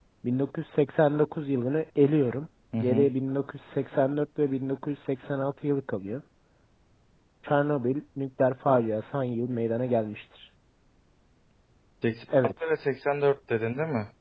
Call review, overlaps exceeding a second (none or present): none